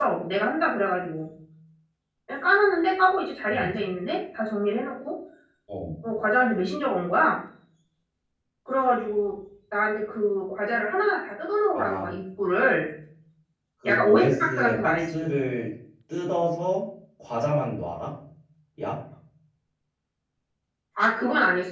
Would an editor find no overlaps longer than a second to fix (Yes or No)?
No